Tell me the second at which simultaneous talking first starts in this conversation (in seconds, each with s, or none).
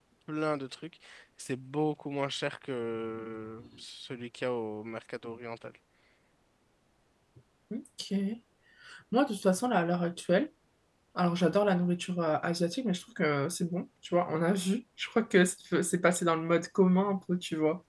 none